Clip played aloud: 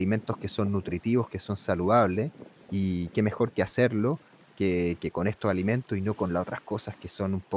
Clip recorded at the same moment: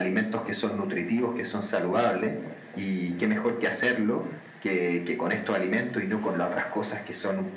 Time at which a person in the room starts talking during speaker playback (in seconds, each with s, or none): none